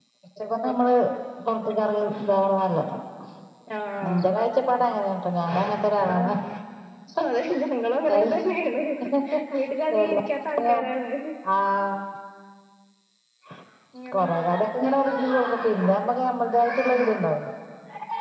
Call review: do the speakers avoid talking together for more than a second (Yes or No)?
Yes